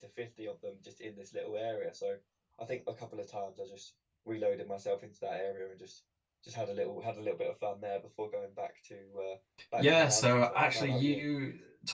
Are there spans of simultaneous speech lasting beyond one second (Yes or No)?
Yes